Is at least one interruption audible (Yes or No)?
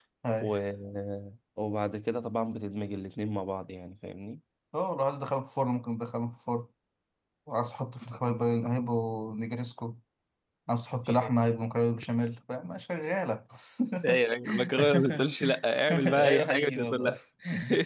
Yes